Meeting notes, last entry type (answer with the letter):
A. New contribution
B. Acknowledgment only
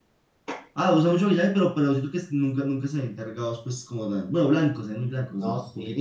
A